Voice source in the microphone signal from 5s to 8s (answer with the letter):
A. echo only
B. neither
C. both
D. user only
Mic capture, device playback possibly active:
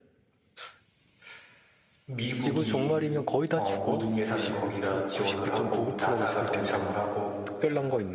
C